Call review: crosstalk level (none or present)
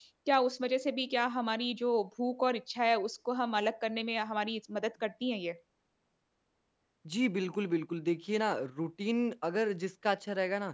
none